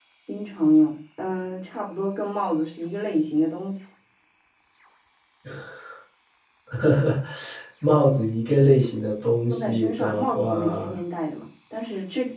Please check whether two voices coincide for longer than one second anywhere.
Yes, from 9.5 s

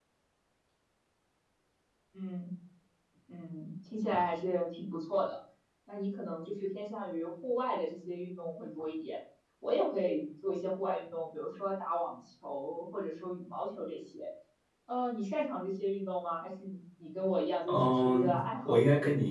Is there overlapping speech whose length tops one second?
Yes, from 17.7 s

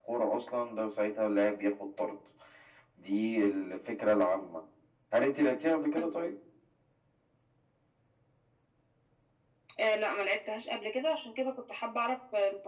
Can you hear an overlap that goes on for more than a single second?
No

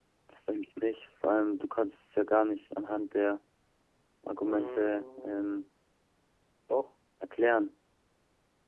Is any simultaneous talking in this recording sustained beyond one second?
Yes, from 4.4 s

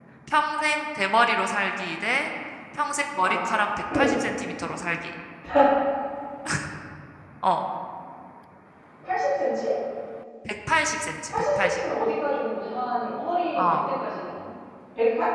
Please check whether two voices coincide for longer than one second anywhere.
No

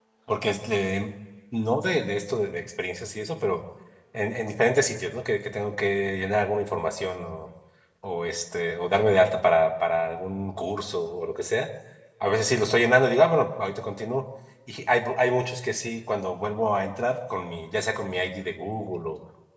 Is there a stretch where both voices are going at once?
No

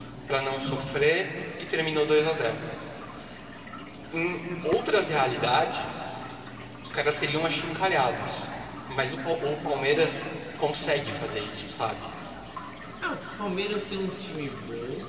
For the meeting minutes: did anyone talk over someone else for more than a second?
No

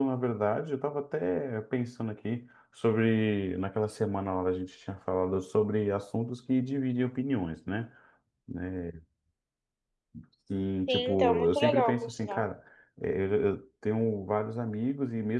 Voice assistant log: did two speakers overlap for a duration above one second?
Yes, from 10.9 s

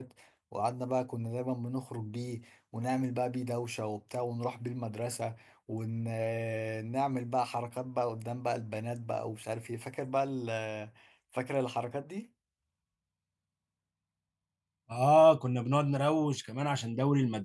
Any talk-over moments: No

